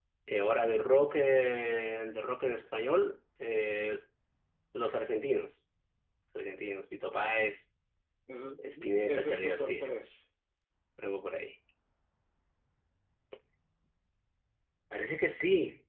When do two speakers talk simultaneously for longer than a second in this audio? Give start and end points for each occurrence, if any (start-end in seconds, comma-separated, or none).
8.6-9.9